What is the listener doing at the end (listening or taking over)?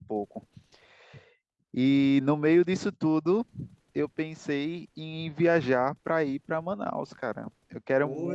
listening